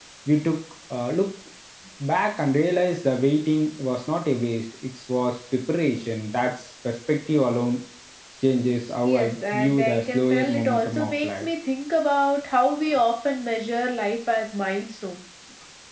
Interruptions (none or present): present